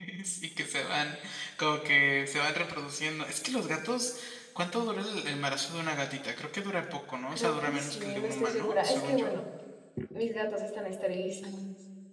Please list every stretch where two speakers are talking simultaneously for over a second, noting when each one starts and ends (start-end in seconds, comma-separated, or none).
7.3-9.3